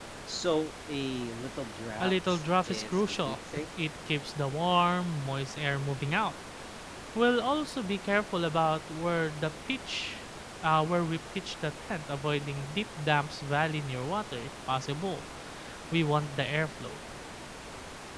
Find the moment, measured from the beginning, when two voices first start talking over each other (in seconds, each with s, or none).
2.0 s